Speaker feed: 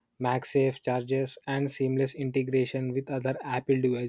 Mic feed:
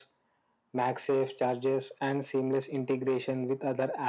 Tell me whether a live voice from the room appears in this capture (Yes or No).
No